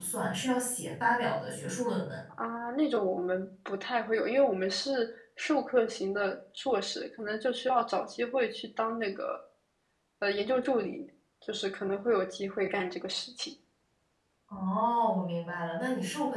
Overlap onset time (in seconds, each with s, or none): none